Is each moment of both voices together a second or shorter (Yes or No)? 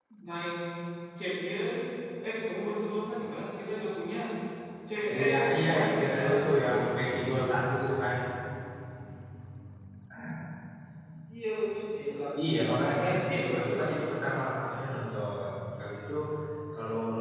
No